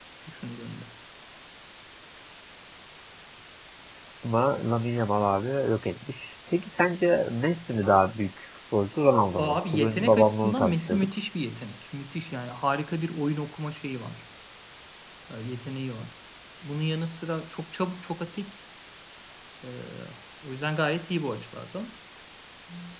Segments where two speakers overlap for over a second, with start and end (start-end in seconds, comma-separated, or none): 9.4-11.1